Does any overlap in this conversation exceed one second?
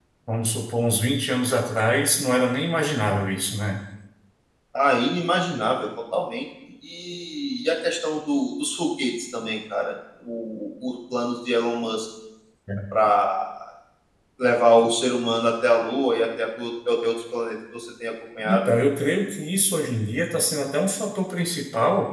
No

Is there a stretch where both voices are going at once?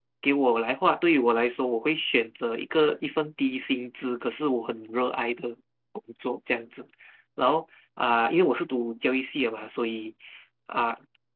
No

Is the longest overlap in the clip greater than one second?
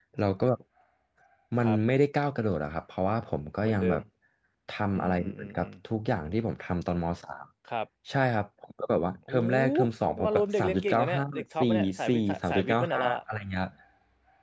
Yes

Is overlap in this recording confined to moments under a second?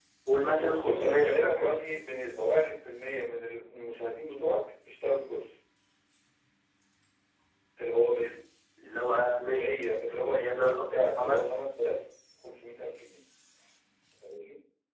No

